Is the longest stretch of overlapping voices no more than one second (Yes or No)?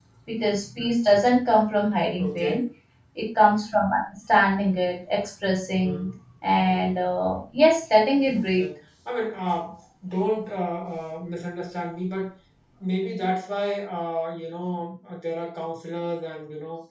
Yes